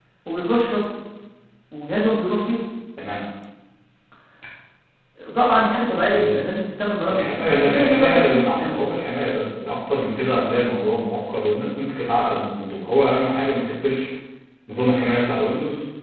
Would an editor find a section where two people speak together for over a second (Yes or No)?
Yes